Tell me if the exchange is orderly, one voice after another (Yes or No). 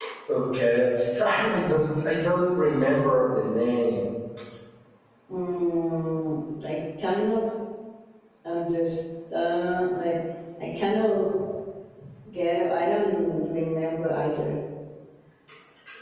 Yes